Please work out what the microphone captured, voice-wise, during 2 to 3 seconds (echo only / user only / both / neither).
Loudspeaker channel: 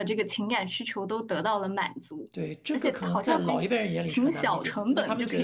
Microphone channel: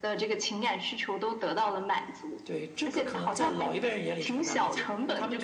echo only